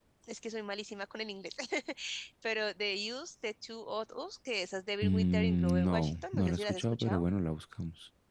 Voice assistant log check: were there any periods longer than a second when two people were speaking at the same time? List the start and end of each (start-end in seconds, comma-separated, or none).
5.0-7.2